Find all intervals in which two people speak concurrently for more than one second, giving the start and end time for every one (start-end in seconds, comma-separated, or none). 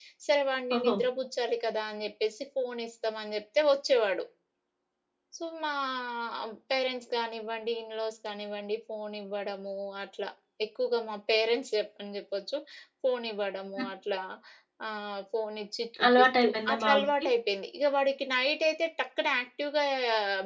16.1-17.2